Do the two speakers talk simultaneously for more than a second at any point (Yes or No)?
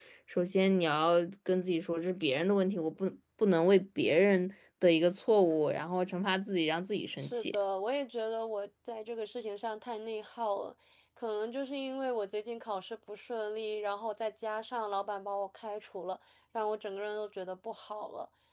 No